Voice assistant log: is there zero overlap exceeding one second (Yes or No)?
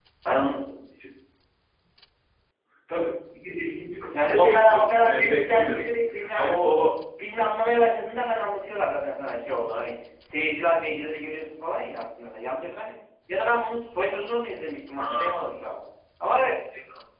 No